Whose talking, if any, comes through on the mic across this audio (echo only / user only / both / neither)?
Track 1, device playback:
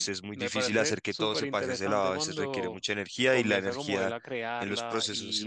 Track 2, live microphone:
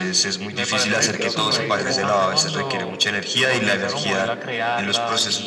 both